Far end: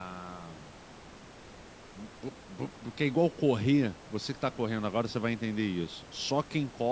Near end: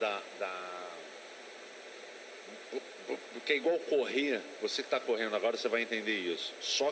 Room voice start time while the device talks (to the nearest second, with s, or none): none